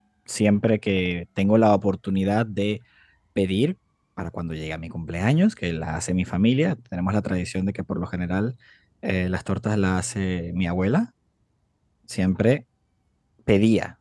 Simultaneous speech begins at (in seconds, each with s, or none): none